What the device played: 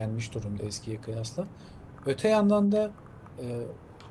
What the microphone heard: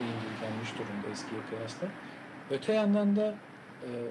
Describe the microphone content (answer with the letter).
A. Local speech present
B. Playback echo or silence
B